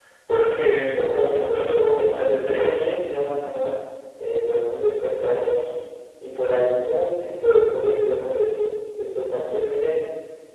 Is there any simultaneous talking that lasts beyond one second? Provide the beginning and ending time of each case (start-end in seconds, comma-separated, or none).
1.0-2.8